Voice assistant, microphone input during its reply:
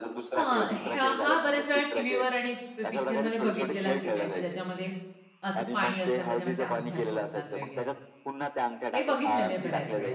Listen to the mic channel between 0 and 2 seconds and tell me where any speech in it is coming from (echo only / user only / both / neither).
both